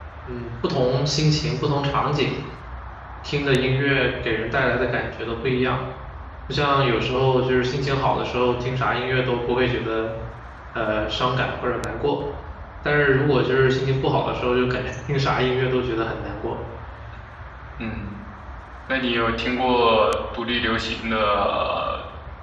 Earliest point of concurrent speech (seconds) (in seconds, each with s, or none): none